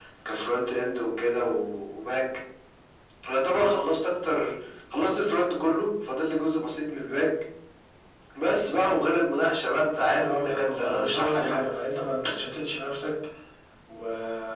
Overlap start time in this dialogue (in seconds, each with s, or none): 9.9 s